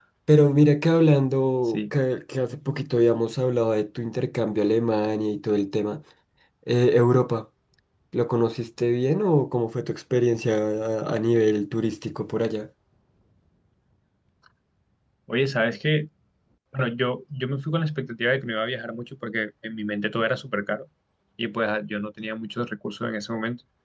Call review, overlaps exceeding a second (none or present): none